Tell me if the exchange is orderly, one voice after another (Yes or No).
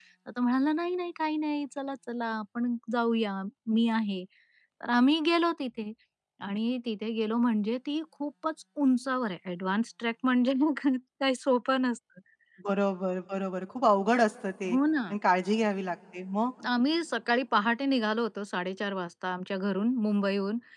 Yes